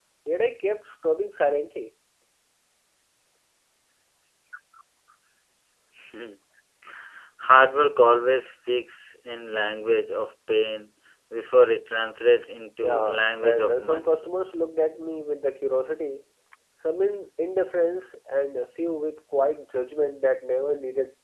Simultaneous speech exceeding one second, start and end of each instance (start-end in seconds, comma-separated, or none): 12.8-14.2